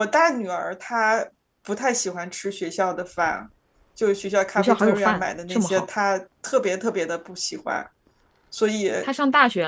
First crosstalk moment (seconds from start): 4.6 s

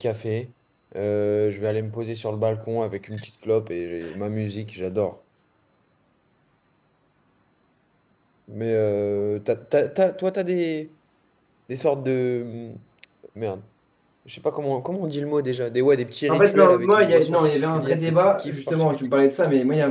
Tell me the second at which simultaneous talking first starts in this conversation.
16.3 s

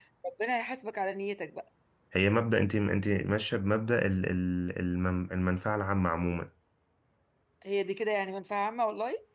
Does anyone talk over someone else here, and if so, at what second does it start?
none

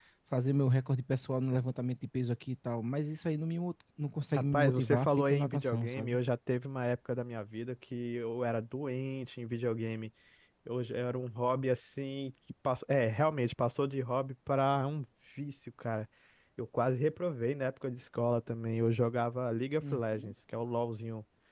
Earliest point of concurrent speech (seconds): 4.3 s

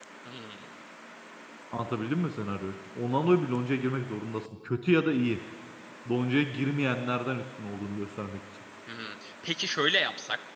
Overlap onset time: none

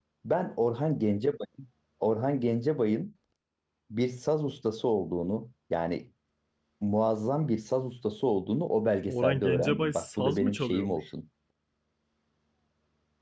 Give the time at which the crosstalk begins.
9.1 s

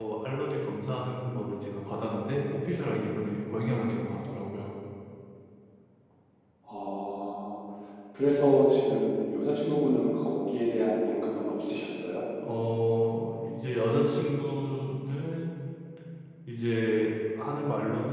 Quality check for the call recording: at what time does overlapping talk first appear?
none

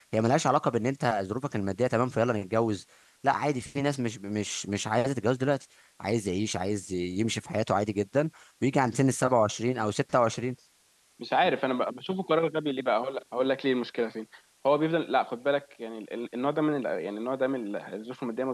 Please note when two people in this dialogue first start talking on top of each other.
none

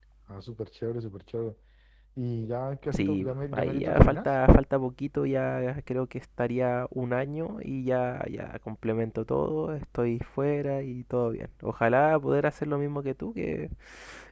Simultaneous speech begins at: 2.9 s

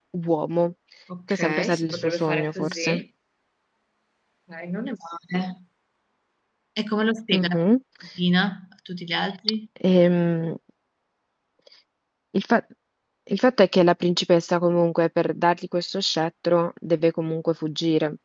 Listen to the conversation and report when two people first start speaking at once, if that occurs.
1.3 s

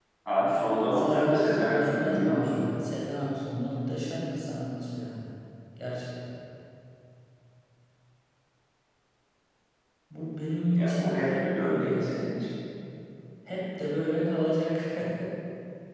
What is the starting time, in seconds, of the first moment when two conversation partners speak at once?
0.9 s

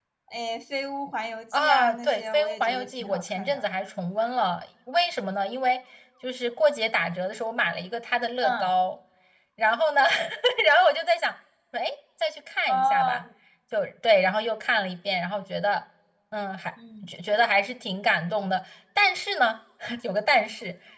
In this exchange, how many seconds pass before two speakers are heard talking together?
1.5 s

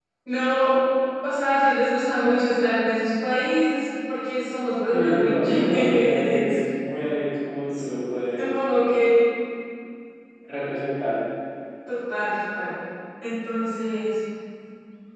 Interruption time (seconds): 4.9 s

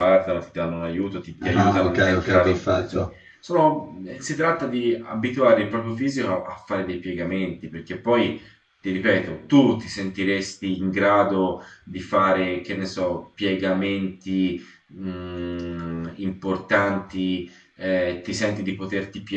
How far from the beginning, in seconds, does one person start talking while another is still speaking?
1.4 s

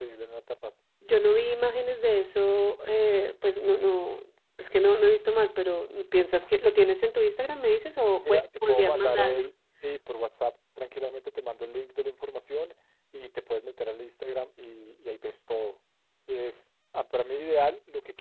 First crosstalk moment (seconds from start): 8.2 s

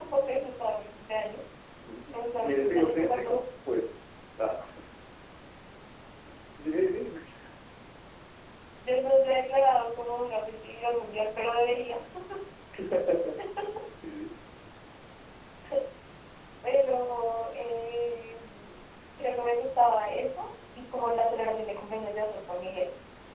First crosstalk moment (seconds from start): 2.1 s

